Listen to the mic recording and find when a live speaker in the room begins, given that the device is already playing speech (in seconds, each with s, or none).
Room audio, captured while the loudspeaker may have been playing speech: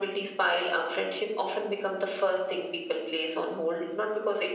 none